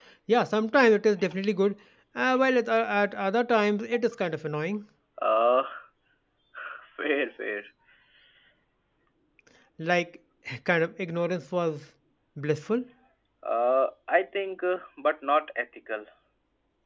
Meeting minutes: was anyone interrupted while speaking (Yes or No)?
No